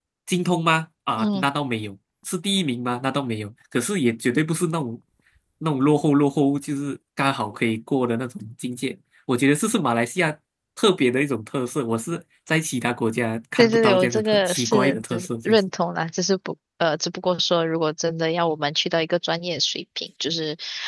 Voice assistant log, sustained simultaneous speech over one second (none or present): present